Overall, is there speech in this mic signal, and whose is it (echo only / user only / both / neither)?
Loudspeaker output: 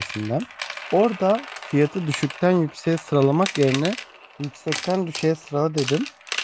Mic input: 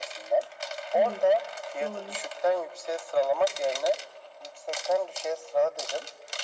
both